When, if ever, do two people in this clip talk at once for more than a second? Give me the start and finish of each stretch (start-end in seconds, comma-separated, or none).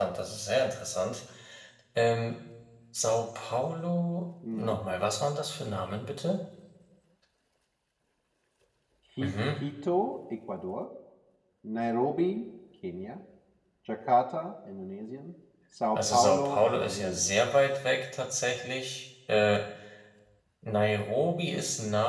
15.9-17.3